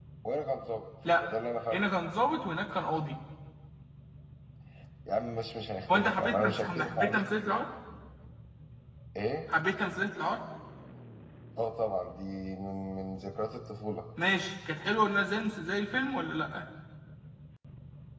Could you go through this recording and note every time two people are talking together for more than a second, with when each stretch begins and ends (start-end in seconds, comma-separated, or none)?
5.9-7.2